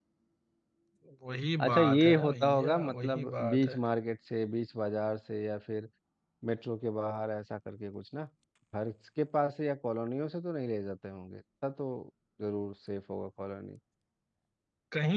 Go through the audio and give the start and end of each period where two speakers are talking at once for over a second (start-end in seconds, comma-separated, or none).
1.6-3.8